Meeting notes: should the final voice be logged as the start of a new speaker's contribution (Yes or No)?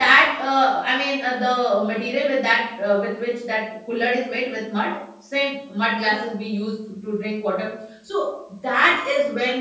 No